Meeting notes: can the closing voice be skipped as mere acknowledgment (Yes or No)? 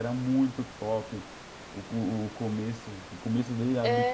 Yes